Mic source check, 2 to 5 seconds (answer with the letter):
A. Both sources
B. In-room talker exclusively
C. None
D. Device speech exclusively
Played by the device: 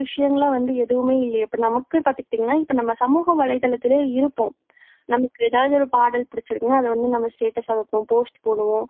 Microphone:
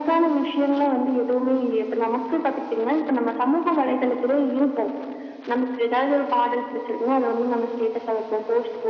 D